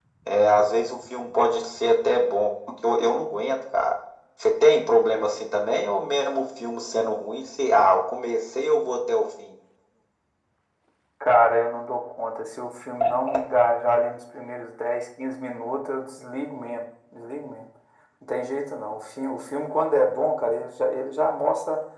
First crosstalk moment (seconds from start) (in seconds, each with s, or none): none